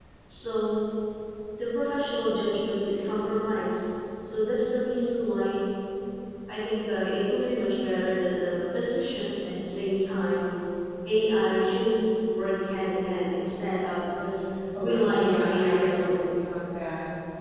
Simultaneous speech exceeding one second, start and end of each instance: 14.8-16.3

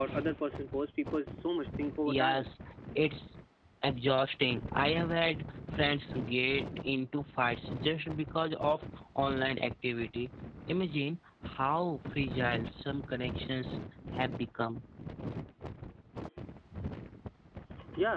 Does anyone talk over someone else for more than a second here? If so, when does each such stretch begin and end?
none

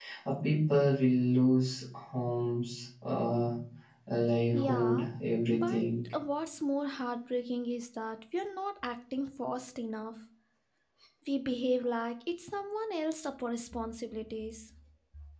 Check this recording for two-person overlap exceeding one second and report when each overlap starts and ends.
none

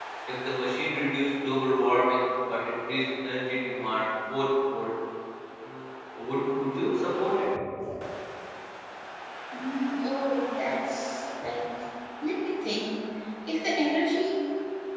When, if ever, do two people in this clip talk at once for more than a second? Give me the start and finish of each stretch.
none

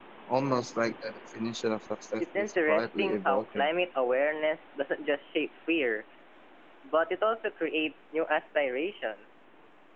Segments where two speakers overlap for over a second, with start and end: 2.2-3.7

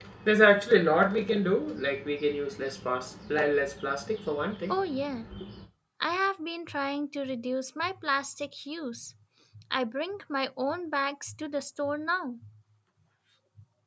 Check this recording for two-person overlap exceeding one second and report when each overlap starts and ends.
none

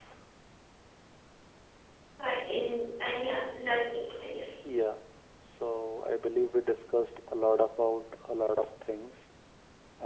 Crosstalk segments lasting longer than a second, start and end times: none

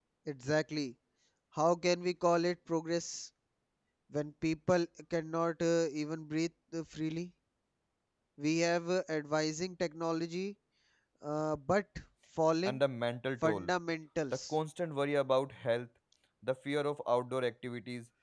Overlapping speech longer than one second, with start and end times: none

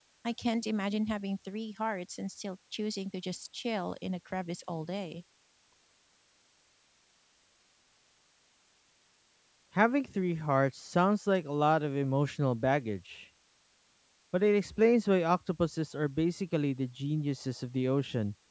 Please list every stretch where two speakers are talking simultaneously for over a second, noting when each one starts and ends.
none

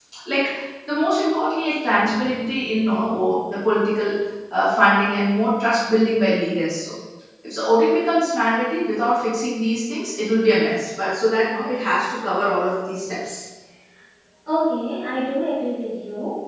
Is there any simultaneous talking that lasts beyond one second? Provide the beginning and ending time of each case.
none

